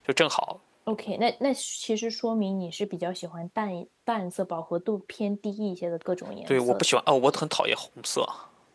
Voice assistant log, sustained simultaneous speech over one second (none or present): none